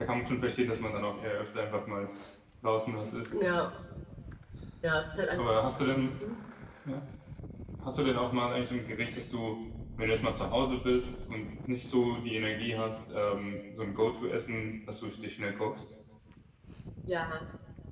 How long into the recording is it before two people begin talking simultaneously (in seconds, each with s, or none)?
none